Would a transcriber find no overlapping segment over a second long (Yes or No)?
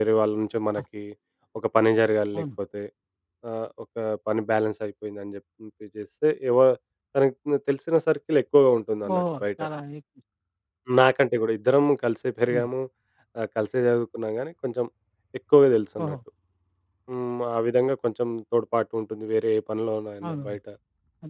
Yes